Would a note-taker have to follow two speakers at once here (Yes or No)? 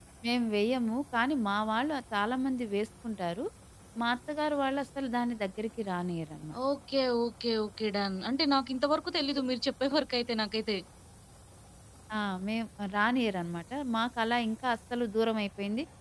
No